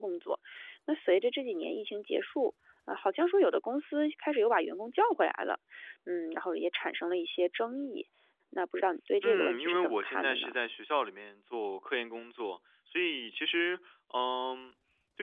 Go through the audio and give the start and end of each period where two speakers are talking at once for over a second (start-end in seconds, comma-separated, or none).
9.2-10.5